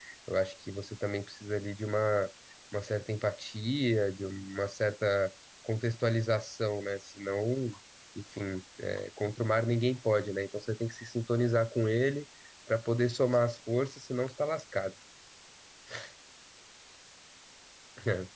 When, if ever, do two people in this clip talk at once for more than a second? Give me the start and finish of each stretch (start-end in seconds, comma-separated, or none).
none